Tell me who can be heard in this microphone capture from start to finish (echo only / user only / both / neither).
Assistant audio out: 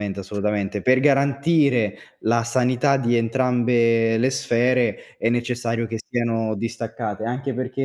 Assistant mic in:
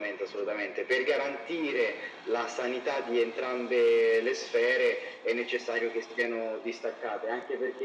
echo only